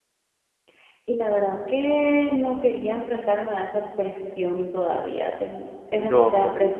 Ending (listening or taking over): listening